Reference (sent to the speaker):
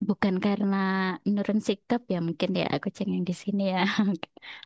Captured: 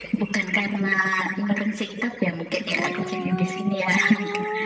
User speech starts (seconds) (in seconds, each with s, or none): 2.7 s